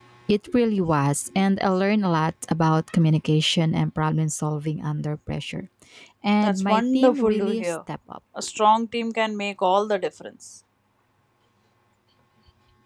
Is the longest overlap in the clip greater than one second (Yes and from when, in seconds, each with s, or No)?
Yes, from 6.4 s